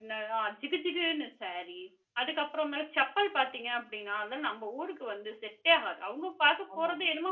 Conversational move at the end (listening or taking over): listening